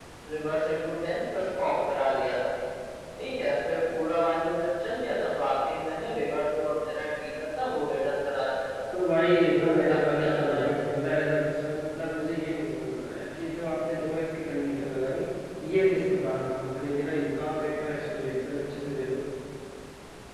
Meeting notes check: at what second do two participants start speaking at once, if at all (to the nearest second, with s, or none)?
10 s